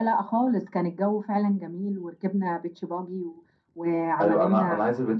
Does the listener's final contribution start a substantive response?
Yes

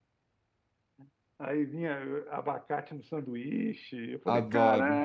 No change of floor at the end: No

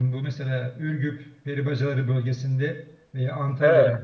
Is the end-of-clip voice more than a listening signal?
No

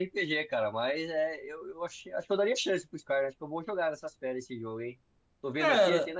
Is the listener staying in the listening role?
No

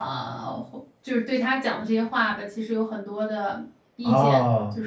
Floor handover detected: Yes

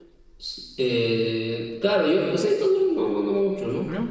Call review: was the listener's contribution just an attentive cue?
Yes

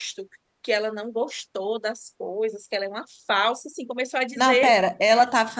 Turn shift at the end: Yes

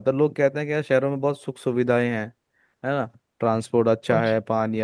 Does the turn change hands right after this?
No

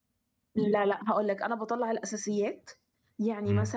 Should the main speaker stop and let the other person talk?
No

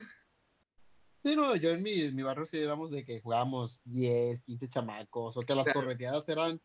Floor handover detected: No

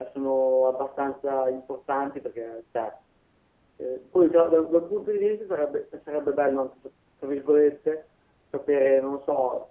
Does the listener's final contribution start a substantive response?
No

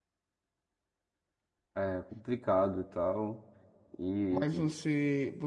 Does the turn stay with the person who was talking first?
No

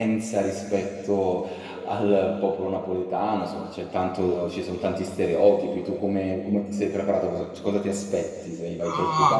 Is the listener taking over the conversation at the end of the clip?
Yes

